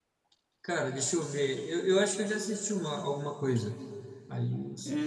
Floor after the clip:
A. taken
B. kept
A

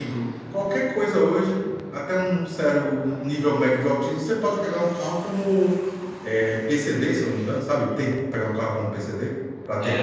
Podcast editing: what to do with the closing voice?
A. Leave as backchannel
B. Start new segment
B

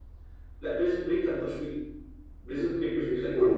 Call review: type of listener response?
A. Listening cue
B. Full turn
A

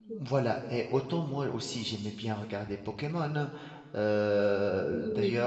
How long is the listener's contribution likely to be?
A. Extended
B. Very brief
B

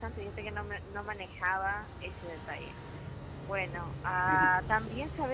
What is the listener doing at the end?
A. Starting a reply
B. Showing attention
B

